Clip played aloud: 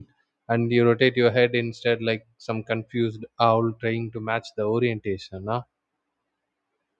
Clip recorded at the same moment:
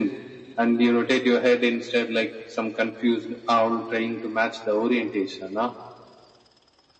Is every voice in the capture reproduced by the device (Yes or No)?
Yes